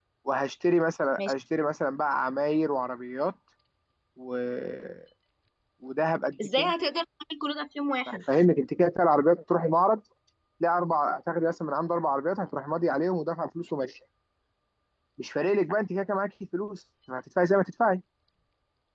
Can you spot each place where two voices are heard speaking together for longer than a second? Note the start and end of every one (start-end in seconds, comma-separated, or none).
none